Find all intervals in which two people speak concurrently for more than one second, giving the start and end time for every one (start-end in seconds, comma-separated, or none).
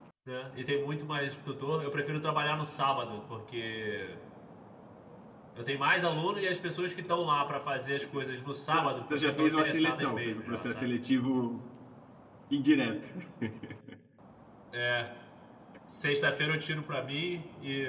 9.1-10.9